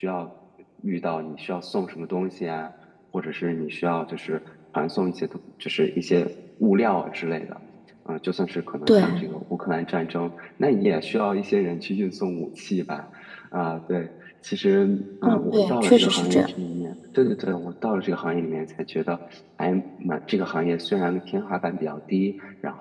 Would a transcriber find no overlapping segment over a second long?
No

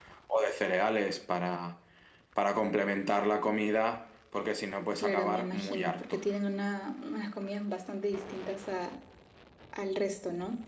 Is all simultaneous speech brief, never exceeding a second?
No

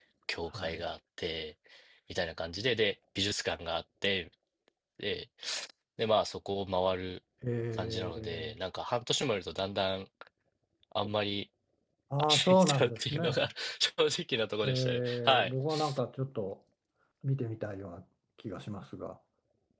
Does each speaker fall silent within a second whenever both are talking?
No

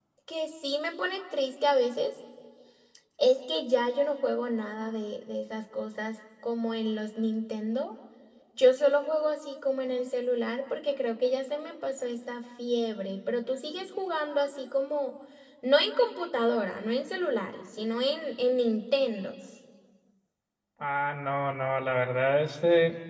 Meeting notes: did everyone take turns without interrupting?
Yes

